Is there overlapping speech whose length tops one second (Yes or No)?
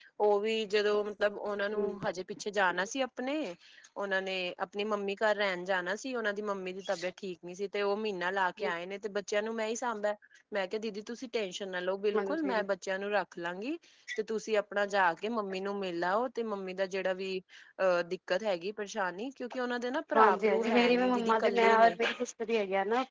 Yes